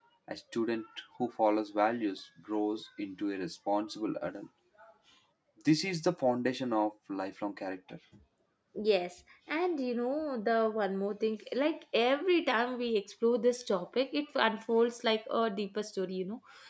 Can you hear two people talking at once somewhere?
No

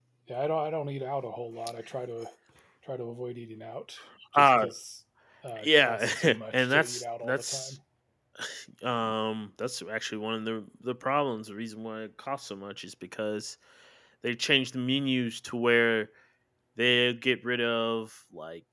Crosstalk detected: Yes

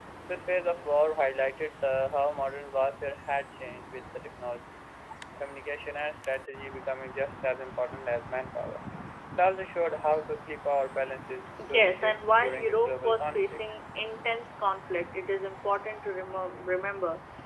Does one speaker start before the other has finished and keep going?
Yes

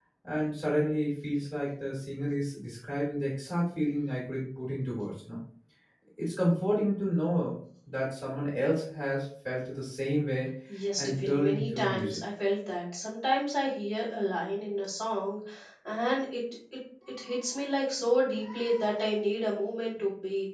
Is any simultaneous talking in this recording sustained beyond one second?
Yes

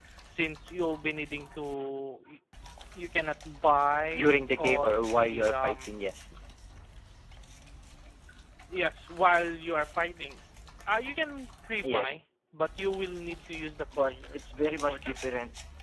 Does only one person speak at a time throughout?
No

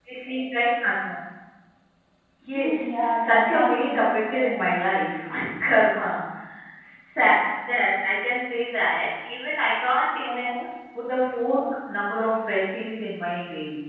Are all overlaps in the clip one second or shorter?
No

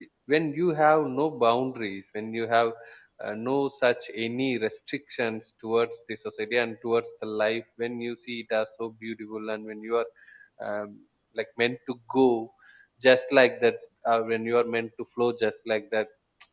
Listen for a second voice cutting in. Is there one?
No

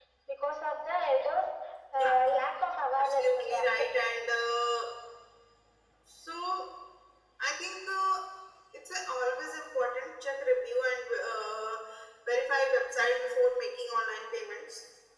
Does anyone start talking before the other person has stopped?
Yes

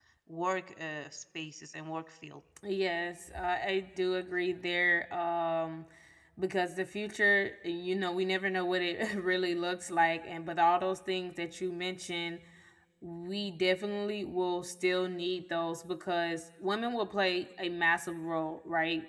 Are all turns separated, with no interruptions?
Yes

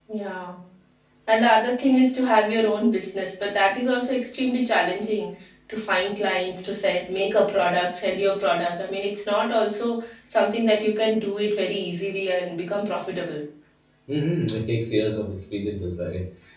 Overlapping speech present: No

